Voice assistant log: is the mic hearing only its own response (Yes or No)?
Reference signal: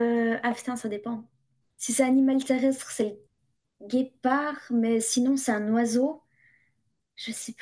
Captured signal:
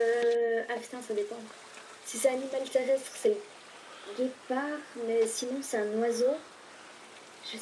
Yes